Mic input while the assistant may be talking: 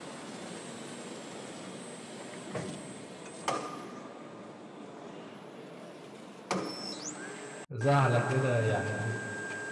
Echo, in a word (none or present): none